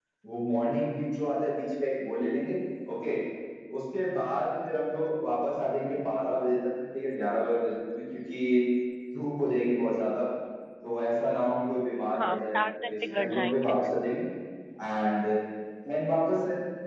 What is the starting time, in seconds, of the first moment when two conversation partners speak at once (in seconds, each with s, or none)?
12.1 s